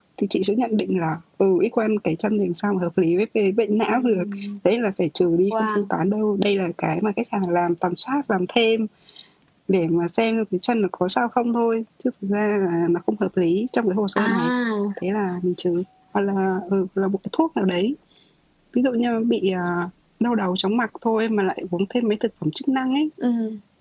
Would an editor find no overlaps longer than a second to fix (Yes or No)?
Yes